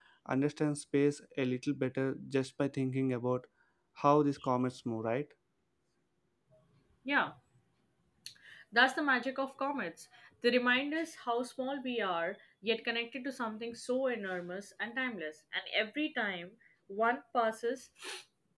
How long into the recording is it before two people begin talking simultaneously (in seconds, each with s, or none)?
none